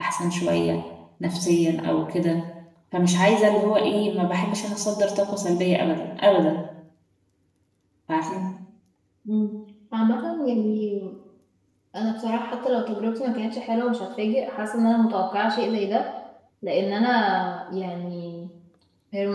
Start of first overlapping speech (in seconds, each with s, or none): none